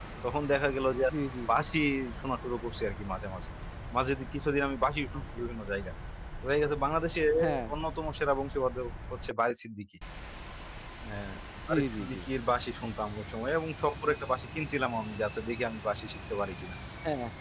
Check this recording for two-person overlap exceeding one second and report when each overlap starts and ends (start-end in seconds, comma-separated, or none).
none